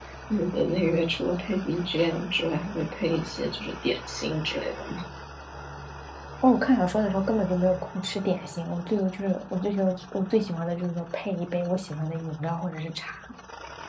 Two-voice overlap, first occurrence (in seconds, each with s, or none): none